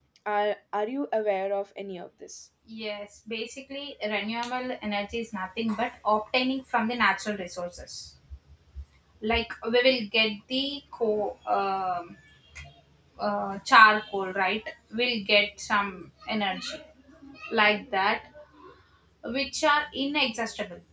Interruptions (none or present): none